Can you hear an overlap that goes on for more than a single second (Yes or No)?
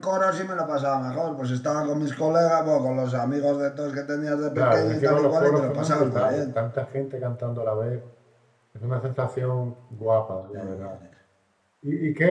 Yes